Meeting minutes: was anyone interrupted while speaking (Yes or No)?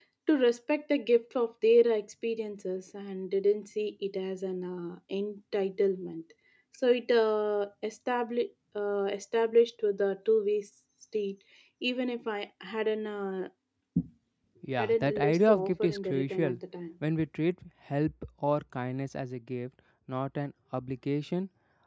Yes